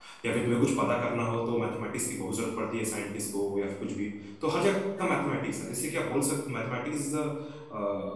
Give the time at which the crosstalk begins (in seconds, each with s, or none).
none